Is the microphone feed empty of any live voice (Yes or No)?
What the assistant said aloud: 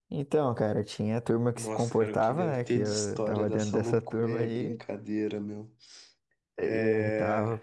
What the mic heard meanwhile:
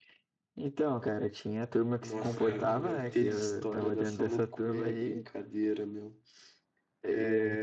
No